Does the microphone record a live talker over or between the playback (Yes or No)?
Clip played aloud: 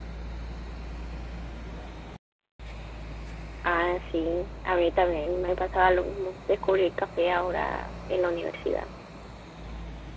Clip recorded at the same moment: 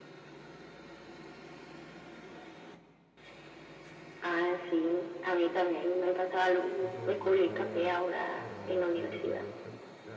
Yes